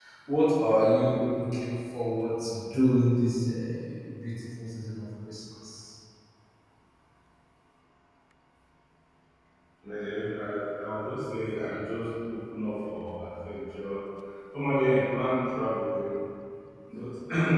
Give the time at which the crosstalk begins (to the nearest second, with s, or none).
none